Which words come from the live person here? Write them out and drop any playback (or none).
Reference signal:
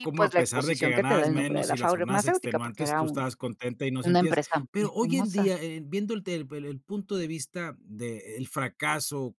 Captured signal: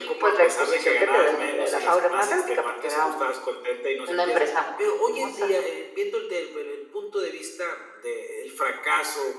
none